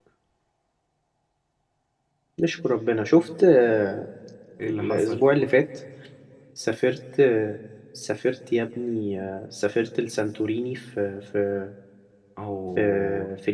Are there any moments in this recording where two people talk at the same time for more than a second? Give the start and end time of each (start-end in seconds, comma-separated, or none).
none